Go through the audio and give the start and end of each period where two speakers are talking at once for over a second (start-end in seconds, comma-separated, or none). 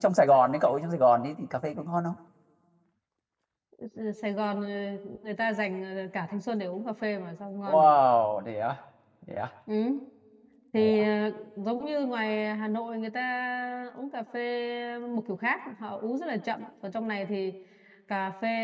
none